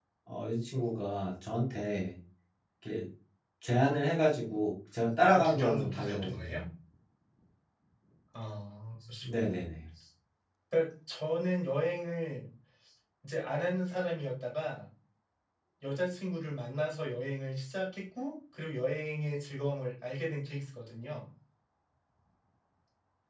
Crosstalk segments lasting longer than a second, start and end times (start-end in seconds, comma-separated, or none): 5.2-6.6